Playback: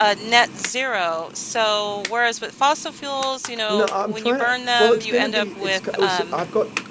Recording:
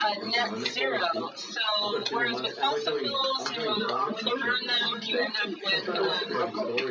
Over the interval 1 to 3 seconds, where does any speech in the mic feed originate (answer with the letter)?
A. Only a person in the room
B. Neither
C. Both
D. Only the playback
C